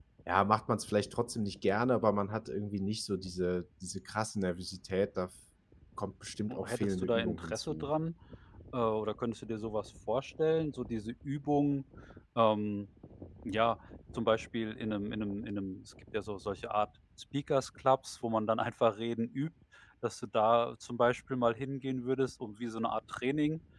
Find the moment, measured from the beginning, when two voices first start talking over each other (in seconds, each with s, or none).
6.6 s